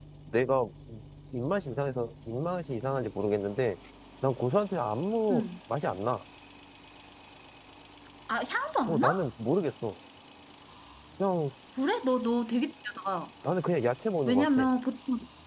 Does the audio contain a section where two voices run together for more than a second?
No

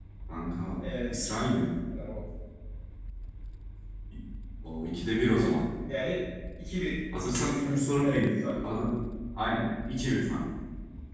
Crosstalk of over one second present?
Yes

